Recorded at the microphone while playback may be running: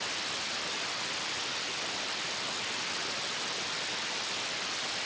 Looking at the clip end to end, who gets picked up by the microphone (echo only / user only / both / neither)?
neither